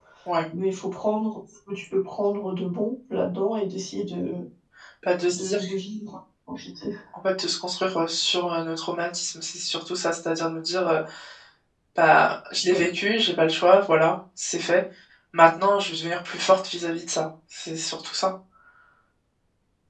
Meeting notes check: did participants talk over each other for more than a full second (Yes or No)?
No